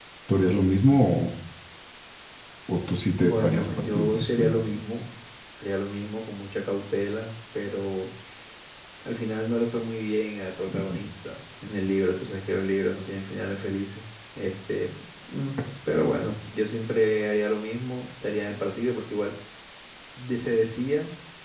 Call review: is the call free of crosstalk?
No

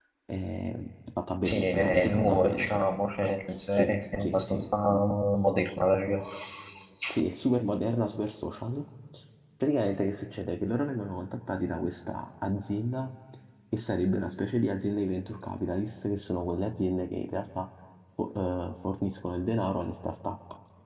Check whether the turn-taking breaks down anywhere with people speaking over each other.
Yes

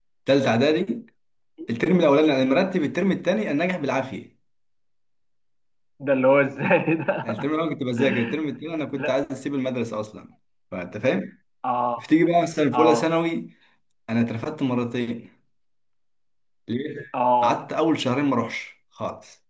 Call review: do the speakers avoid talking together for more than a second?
Yes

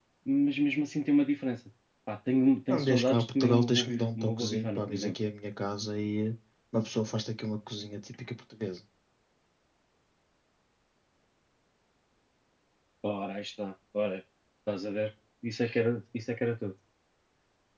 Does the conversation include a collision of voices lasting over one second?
Yes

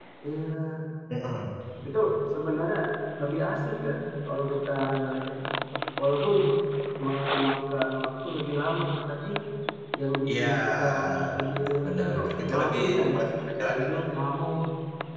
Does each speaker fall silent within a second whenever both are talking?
No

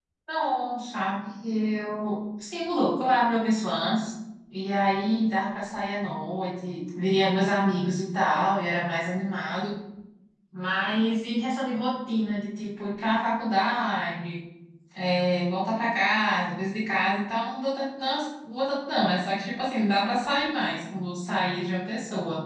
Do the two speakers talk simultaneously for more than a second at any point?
No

